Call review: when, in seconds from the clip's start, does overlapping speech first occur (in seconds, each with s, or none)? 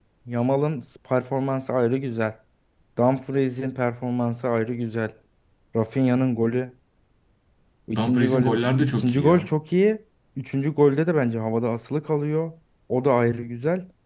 8.0 s